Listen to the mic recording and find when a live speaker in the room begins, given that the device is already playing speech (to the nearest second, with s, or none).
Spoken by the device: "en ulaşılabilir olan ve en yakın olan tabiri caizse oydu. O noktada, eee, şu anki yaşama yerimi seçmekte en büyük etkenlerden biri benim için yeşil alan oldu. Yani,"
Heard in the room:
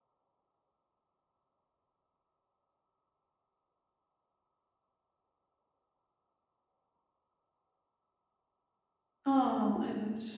9 s